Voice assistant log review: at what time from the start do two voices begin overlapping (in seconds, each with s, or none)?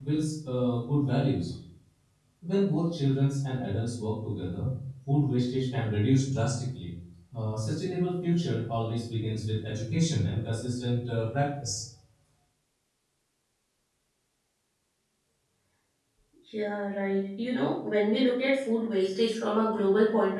none